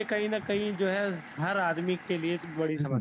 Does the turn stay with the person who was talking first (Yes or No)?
No